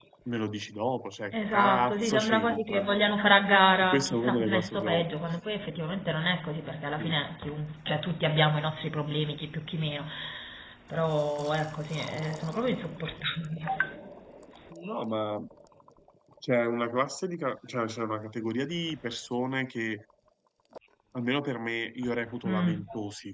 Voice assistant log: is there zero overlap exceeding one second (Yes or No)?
No